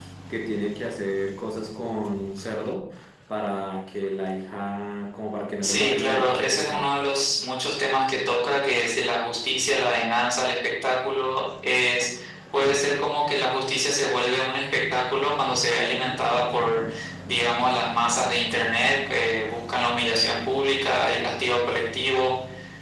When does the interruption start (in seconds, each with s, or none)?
5.6 s